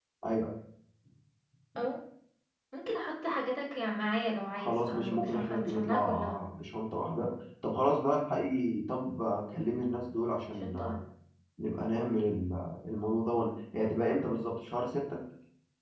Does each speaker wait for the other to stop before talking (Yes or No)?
No